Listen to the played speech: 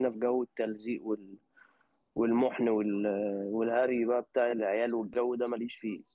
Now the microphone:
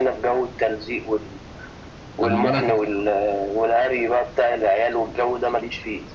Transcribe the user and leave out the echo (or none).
خلي بالك